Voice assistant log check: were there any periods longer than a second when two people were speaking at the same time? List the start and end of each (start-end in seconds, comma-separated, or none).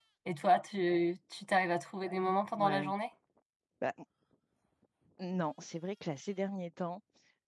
none